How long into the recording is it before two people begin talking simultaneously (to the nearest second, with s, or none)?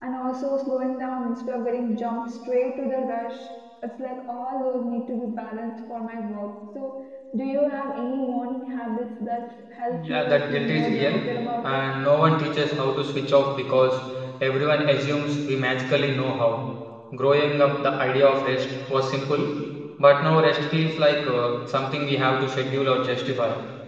10 s